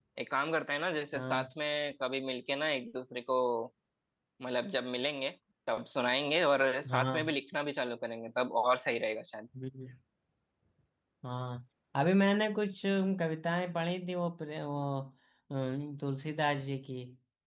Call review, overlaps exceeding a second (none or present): none